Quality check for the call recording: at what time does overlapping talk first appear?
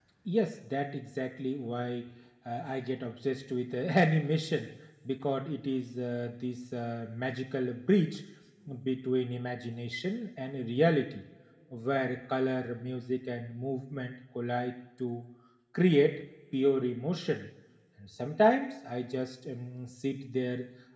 none

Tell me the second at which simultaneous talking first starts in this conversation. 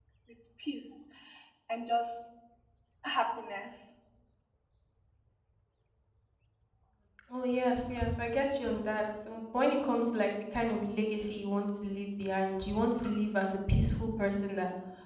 none

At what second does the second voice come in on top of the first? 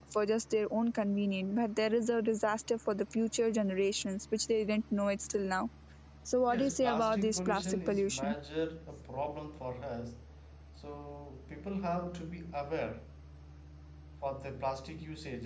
6.5 s

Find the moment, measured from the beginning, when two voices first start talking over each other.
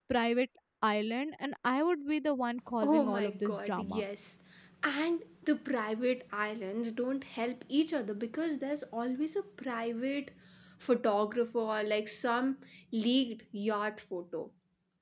2.8 s

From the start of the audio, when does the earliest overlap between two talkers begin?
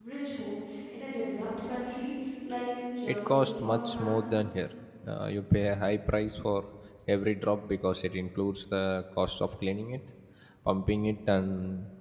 3.1 s

